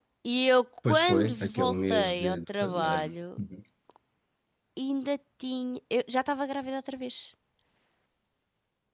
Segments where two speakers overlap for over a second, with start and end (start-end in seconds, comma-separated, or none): 0.9-3.4